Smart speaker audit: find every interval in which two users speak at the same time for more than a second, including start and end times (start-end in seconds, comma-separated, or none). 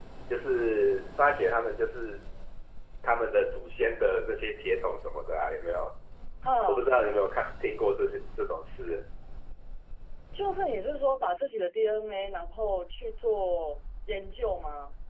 none